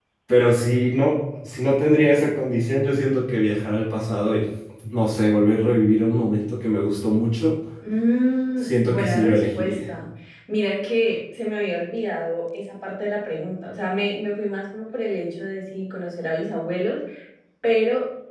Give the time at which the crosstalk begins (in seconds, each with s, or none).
8.6 s